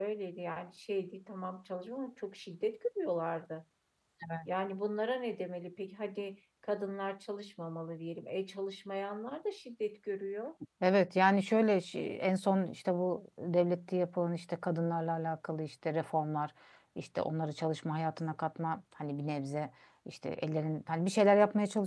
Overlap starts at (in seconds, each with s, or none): none